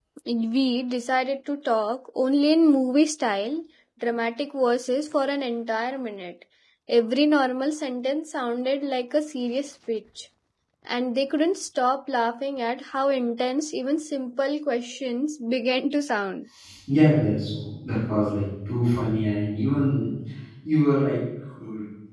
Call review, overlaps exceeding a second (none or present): none